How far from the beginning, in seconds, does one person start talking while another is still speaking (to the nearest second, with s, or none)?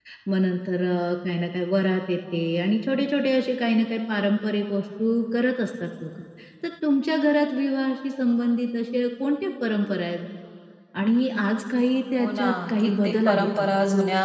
12 s